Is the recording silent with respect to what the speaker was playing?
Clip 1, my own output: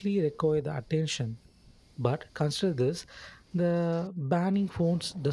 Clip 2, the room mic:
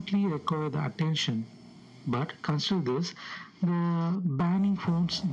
No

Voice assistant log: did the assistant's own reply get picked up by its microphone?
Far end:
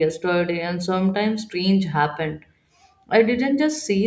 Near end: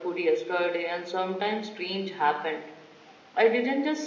Yes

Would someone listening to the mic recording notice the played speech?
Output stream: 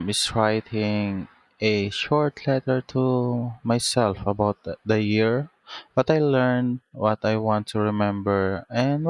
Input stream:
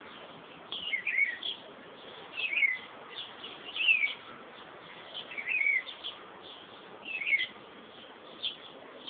No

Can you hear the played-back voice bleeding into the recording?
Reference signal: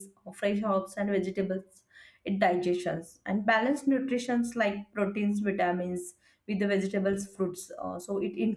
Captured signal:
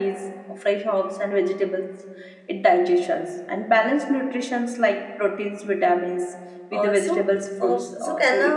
Yes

